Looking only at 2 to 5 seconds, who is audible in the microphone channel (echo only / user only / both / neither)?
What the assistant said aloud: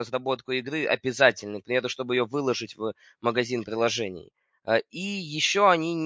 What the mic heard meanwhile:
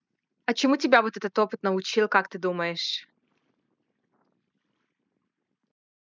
user only